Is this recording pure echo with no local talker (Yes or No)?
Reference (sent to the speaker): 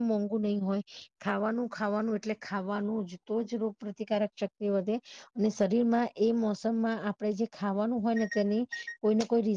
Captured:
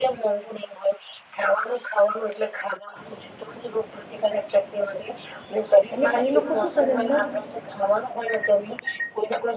No